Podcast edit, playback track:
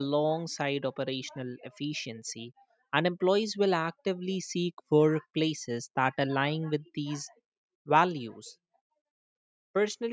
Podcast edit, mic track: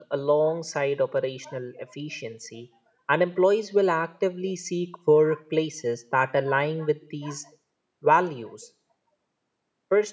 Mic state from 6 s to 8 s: echo only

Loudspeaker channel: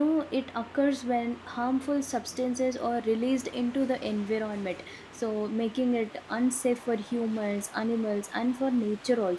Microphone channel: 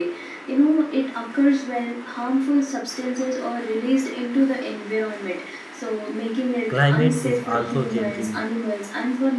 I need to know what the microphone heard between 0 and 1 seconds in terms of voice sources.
echo only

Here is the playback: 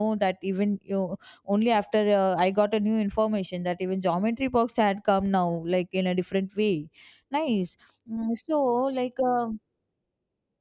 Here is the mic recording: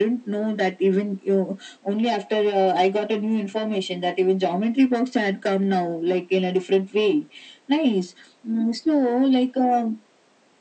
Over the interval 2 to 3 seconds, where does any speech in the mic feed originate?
echo only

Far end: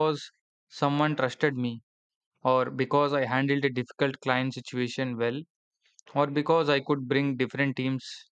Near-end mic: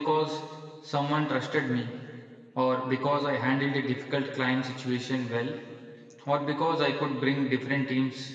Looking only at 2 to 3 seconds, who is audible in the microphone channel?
echo only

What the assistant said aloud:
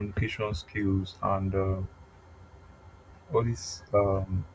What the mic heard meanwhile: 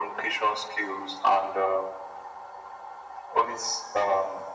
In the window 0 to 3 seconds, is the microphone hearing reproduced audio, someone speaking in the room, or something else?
echo only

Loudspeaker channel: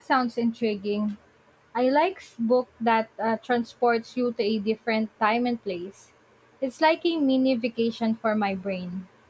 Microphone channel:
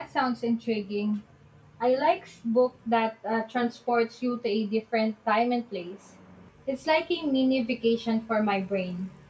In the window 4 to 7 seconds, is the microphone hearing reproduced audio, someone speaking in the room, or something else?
echo only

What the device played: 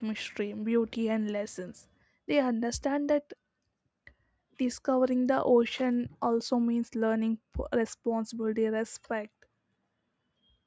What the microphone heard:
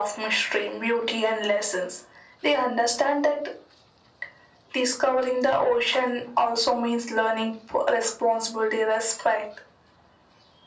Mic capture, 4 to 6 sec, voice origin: echo only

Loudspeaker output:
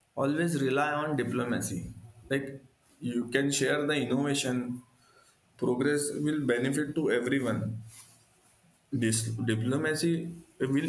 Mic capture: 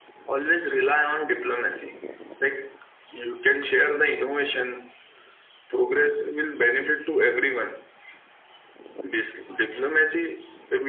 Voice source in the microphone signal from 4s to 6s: echo only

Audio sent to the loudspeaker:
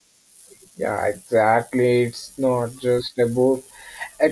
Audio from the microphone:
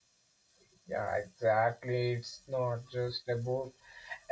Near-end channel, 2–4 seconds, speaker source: echo only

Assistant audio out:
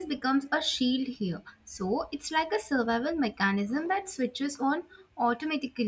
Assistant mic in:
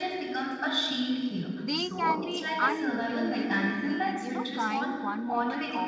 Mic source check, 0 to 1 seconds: echo only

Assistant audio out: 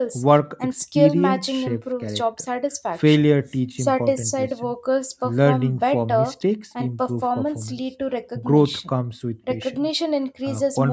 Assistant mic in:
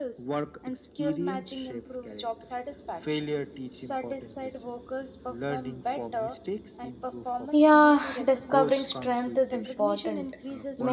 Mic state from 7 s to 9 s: both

